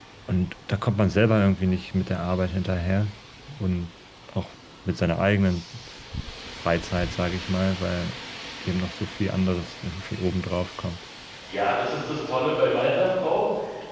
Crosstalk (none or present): none